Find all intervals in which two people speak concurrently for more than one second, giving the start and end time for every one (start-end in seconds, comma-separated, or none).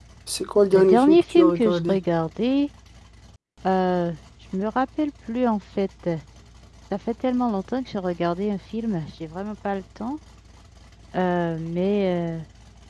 0.7-2.0